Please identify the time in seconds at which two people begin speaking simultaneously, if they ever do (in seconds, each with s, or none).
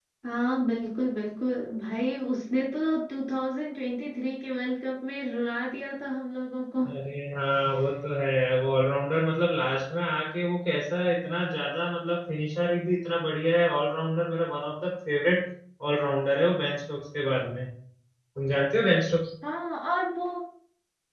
none